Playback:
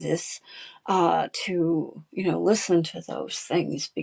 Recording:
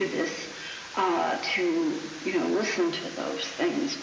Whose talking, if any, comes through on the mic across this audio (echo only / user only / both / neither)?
echo only